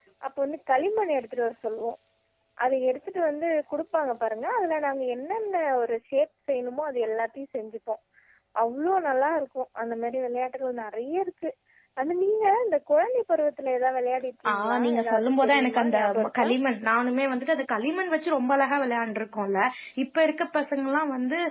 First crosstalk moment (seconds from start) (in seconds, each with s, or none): 14.4 s